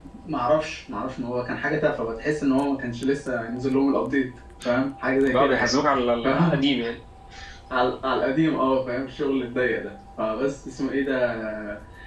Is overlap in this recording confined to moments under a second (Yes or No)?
Yes